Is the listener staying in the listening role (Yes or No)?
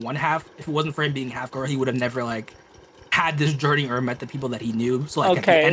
No